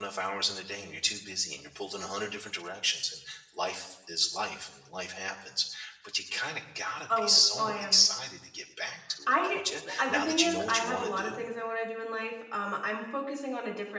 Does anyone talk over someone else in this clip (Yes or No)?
Yes